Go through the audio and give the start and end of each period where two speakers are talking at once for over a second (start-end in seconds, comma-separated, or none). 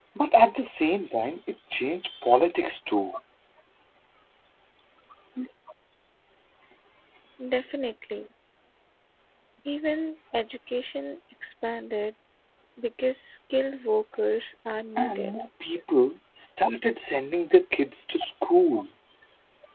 none